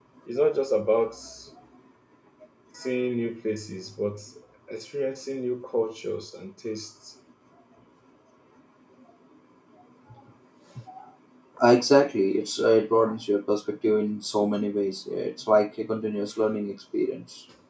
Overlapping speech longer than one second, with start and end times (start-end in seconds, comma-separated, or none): none